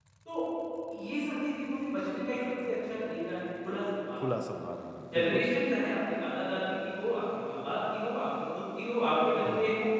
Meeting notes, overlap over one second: none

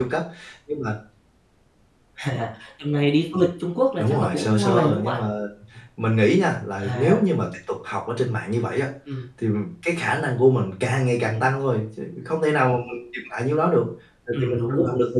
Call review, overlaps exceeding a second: present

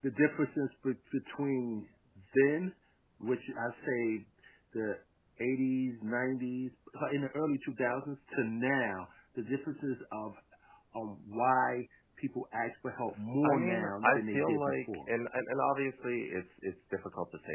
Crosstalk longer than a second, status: present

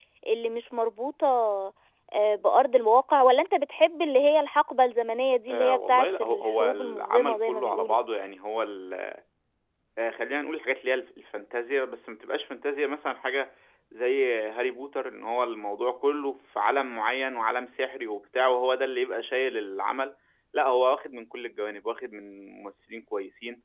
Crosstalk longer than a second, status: present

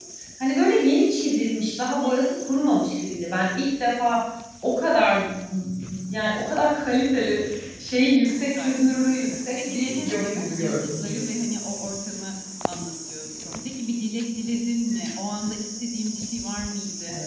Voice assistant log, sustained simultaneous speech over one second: present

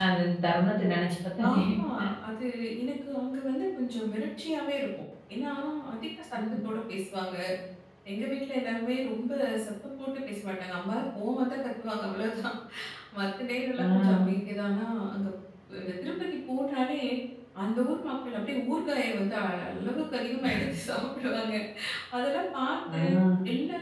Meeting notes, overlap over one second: none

